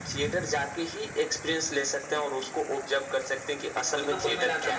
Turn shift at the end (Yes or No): Yes